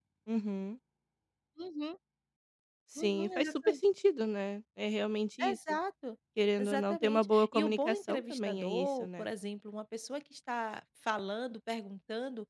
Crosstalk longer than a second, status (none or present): present